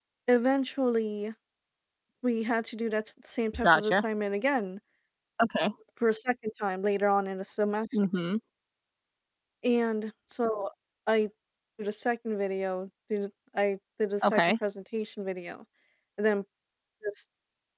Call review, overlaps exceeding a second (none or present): none